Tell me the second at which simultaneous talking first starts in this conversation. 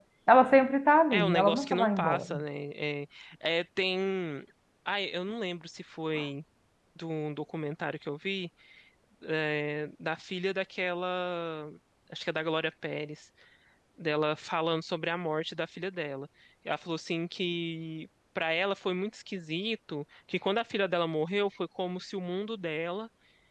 1.1 s

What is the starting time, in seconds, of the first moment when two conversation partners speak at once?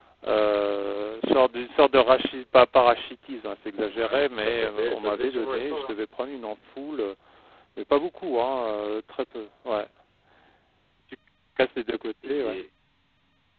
3.9 s

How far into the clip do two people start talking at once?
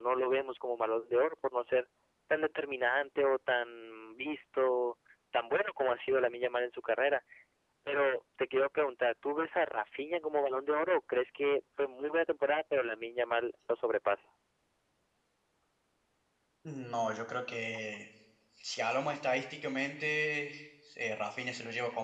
none

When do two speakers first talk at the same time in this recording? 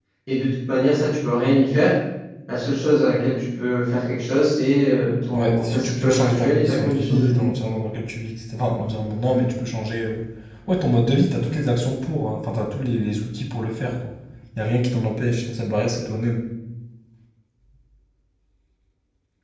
5.3 s

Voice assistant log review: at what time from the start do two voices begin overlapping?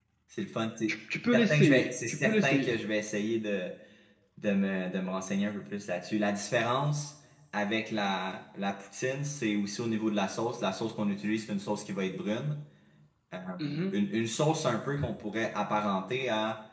1.1 s

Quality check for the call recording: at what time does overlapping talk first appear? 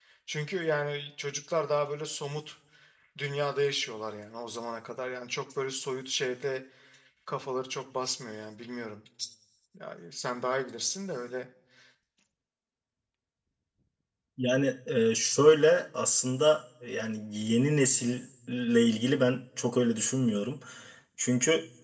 none

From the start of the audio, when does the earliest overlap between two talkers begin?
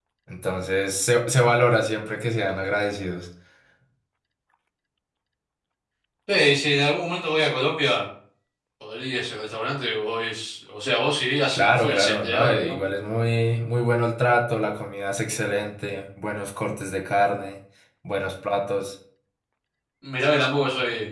11.5 s

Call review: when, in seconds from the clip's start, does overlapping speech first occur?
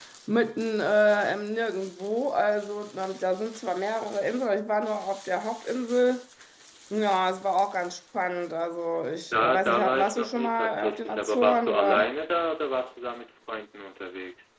9.3 s

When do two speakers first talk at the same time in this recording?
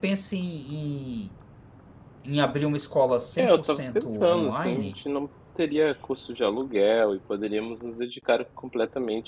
3.4 s

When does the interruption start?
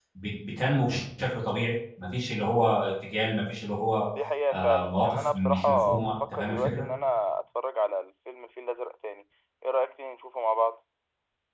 4.5 s

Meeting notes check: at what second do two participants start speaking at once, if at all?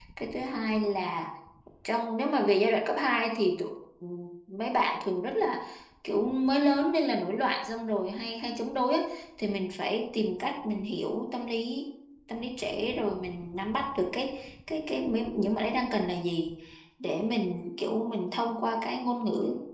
none

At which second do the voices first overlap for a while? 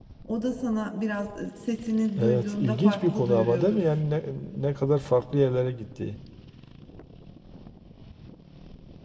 2.2 s

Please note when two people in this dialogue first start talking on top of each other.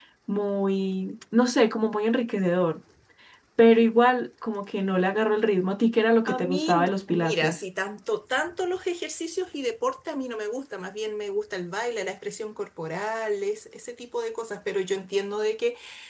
6.3 s

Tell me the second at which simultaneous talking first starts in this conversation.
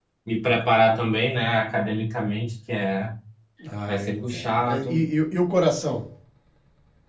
3.9 s

